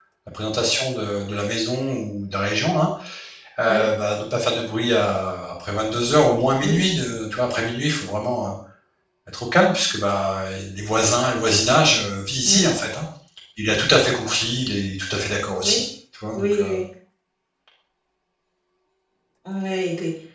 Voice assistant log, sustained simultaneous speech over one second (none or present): none